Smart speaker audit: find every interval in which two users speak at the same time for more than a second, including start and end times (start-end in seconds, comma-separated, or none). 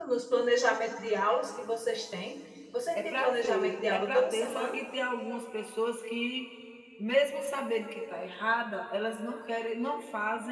3.0-4.8